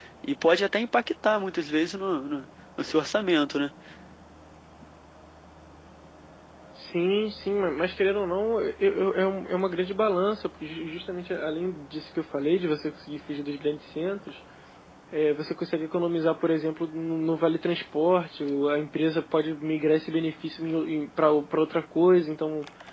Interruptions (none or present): none